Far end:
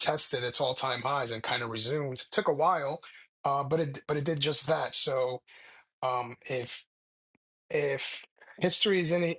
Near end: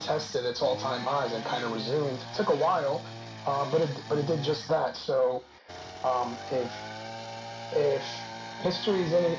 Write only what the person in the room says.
none

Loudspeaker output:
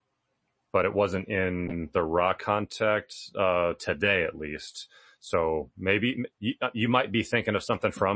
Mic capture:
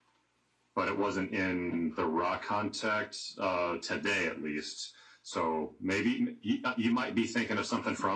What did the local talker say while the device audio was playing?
none

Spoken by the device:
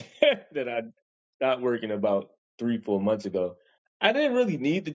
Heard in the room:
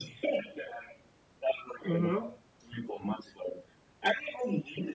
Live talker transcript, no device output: Mm-hmm.

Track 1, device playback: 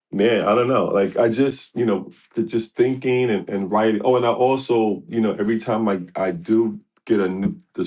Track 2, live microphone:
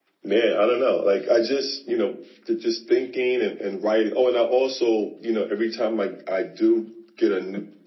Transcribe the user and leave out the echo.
none

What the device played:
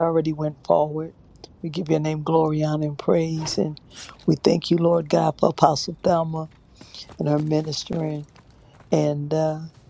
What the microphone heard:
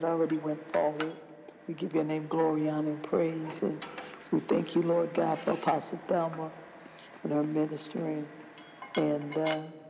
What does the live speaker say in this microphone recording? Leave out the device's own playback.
none

